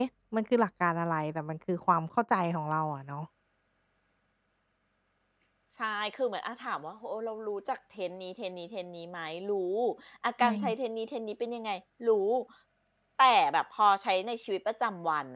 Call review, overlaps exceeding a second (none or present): none